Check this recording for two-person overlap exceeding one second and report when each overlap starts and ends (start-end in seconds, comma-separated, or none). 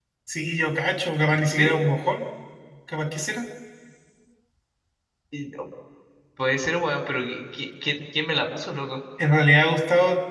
none